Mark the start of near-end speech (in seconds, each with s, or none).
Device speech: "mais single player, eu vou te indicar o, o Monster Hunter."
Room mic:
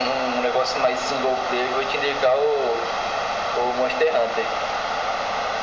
none